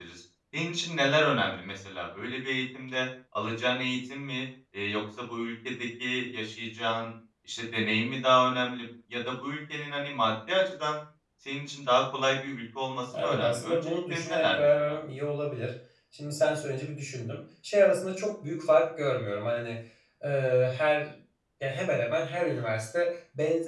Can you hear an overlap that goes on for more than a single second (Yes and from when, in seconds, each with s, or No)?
Yes, from 13.1 s